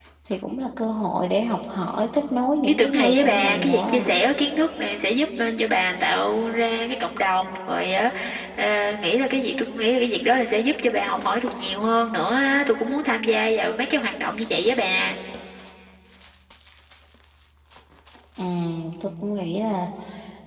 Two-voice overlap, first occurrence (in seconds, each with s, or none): 2.6 s